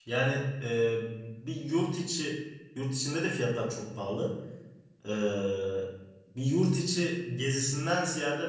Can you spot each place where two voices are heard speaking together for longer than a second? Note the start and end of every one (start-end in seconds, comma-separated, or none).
none